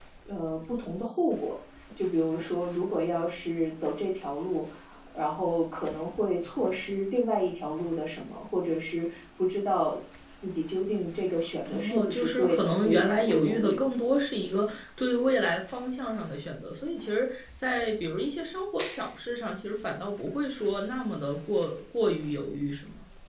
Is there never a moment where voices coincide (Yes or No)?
No